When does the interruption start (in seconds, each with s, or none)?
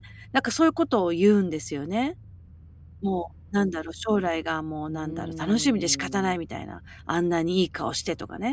4.9 s